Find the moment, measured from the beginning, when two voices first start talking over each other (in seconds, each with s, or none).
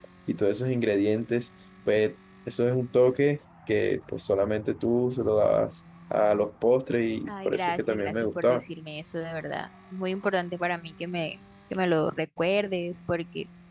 7.3 s